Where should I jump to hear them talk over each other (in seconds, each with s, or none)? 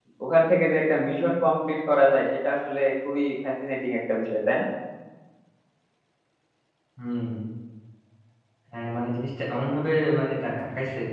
none